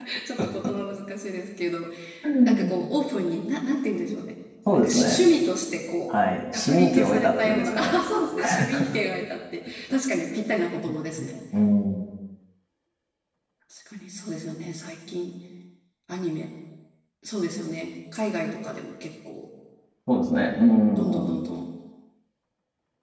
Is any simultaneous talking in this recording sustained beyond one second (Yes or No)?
Yes